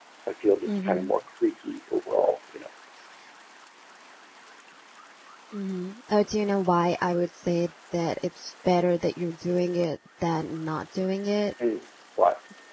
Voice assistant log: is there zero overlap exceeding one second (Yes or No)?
Yes